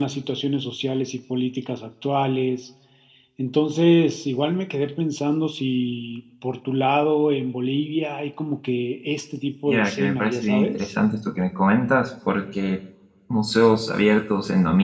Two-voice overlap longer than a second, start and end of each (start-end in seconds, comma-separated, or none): 9.7-10.9